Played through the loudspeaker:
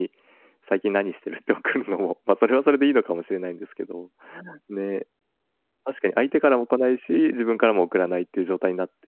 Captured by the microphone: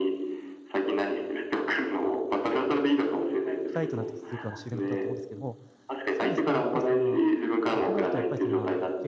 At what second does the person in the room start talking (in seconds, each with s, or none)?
3.7 s